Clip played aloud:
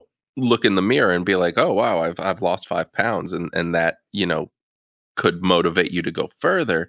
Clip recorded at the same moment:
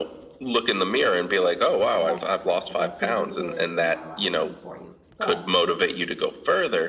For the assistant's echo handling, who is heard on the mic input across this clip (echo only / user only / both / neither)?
both